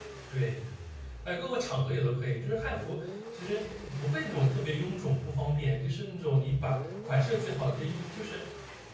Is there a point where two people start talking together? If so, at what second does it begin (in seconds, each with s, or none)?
none